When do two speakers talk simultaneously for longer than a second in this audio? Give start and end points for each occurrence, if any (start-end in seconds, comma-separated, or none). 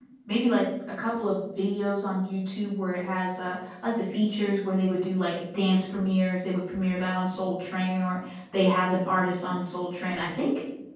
none